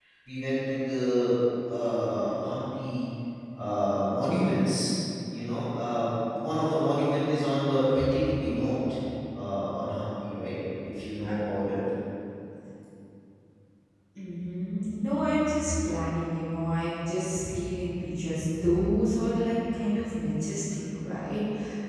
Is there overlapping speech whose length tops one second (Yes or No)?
No